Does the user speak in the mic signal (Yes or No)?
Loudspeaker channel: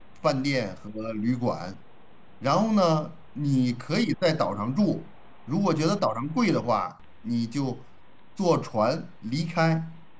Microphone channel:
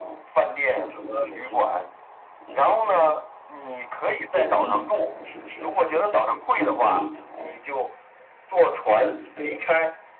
Yes